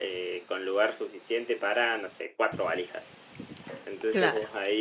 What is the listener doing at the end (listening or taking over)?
listening